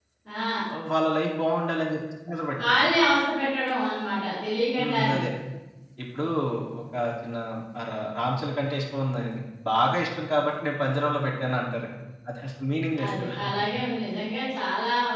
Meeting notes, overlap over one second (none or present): none